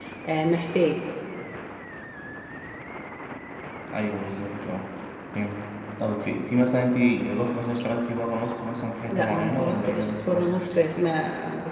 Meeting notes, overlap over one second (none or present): present